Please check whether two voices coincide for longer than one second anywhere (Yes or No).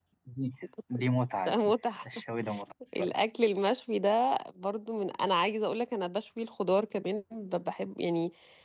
No